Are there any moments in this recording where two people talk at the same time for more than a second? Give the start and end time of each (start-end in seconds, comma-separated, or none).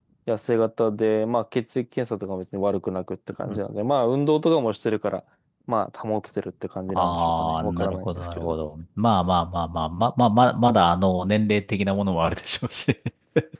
6.9-8.5